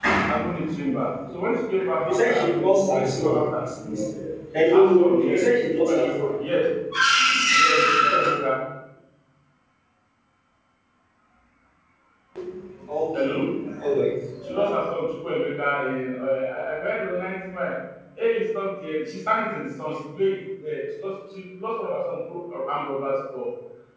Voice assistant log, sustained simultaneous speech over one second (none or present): present